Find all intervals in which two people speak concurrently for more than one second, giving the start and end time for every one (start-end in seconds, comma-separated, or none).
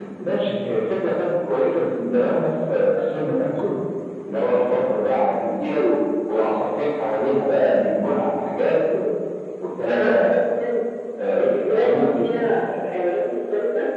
11.4-12.8